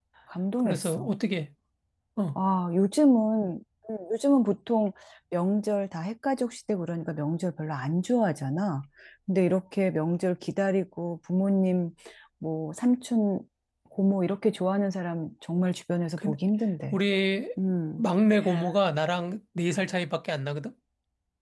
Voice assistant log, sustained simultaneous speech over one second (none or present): none